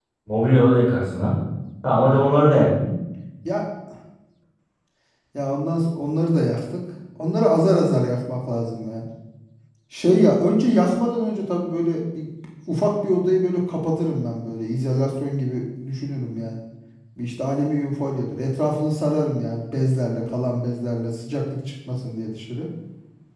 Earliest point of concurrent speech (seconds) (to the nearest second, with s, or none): none